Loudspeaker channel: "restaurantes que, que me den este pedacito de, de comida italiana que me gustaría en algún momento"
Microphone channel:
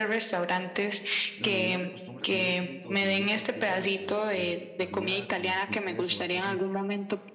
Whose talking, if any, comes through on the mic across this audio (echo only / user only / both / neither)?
both